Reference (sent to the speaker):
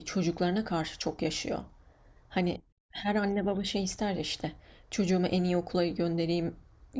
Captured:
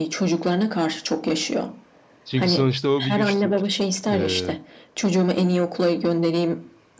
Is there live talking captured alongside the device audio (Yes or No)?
Yes